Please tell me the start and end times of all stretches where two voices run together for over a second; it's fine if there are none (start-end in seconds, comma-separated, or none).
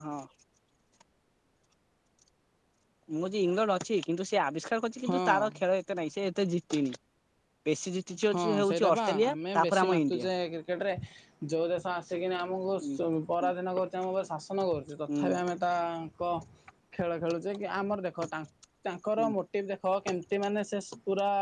8.3-10.3